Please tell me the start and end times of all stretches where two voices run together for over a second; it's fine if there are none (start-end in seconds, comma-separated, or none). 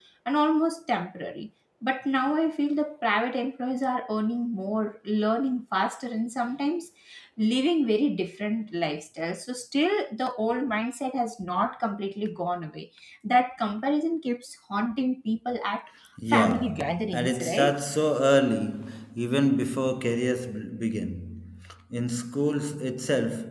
16.3-17.8